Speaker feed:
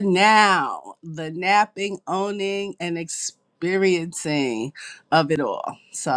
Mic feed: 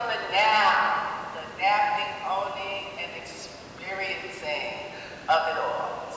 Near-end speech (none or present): none